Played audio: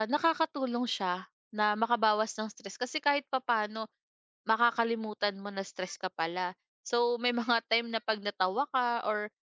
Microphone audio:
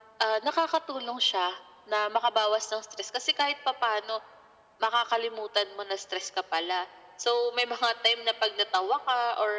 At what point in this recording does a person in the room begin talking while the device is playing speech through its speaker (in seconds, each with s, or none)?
none